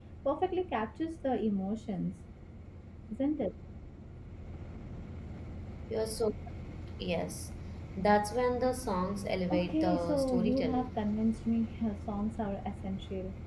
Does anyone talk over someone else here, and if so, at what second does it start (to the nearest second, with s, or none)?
10 s